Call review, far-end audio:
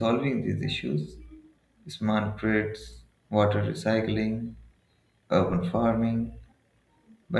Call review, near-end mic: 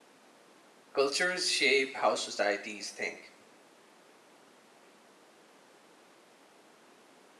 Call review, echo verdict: none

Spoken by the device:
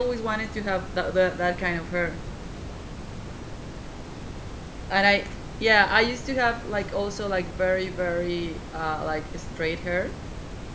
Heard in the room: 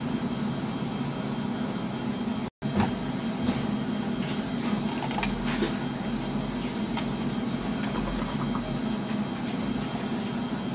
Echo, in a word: none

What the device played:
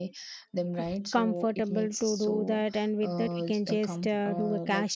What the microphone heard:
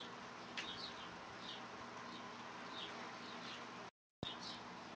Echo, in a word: none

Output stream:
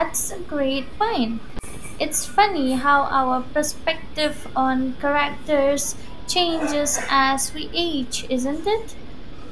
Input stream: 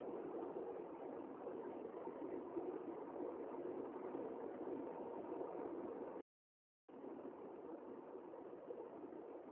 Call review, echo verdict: none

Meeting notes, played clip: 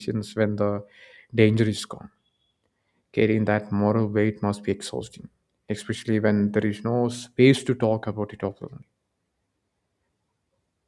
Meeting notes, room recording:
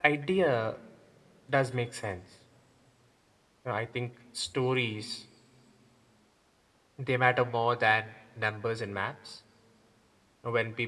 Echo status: none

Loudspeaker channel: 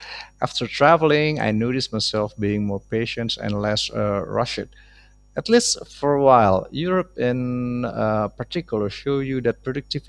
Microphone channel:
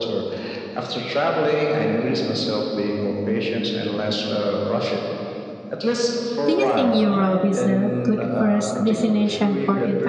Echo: present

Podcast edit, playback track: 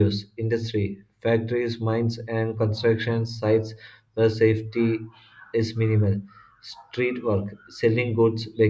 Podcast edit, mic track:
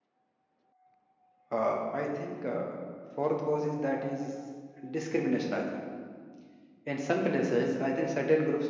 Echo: none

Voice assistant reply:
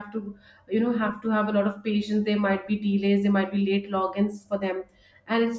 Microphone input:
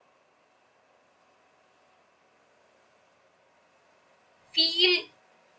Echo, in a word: none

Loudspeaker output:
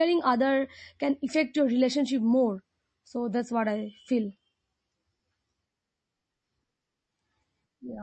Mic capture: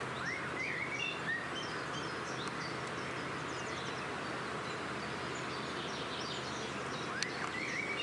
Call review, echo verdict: none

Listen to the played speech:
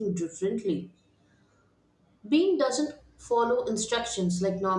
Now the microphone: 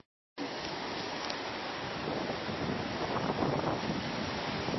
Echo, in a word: none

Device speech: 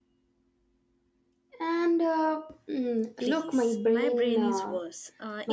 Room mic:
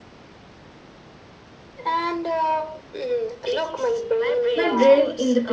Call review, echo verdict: present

